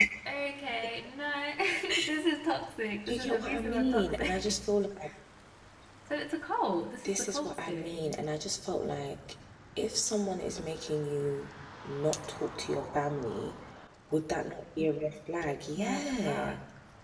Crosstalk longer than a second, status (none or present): present